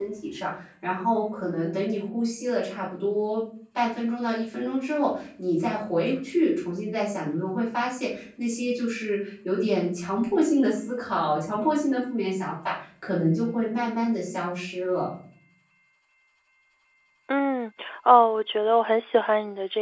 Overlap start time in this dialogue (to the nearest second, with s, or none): none